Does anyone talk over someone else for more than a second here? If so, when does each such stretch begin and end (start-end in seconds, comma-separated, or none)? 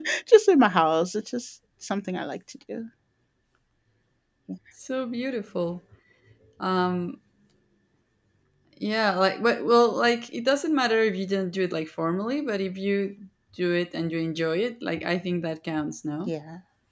none